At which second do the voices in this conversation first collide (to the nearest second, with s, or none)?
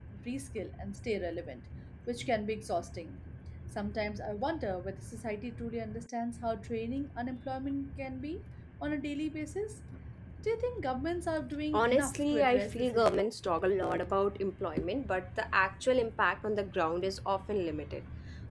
12 s